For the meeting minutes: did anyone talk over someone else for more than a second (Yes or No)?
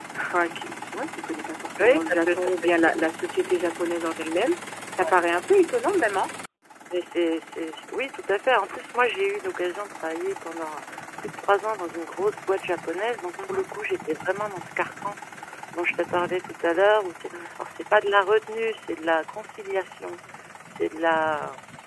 Yes